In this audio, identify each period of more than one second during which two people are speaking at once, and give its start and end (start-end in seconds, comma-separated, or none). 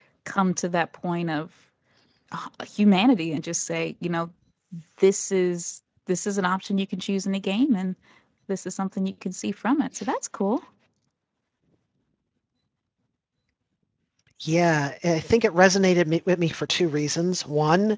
none